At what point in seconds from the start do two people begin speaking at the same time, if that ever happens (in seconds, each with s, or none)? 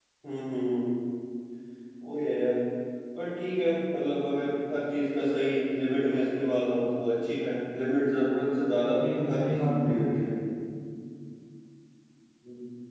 8.8 s